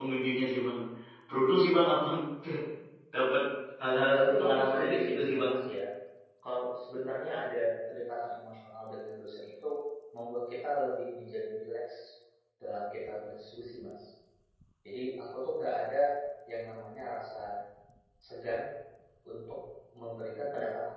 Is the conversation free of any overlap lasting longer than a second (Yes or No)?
No